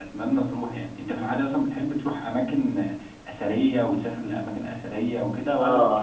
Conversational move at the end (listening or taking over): taking over